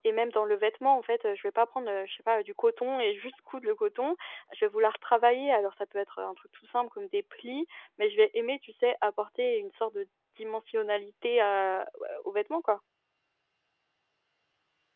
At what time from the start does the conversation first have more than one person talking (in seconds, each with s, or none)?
none